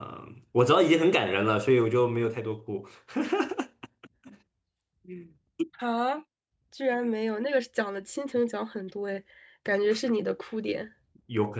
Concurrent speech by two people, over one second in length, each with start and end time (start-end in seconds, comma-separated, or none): none